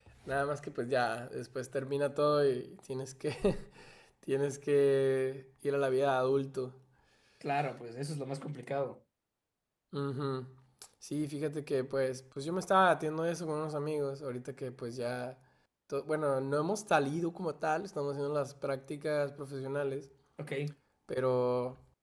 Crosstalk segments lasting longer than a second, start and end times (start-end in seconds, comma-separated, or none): none